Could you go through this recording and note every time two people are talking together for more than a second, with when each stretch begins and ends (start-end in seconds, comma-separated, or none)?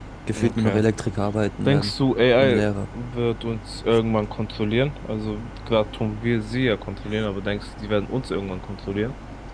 none